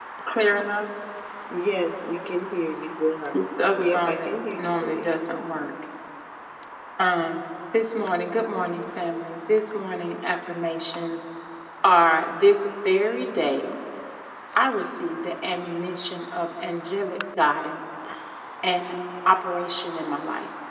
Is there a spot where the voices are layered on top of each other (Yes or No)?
Yes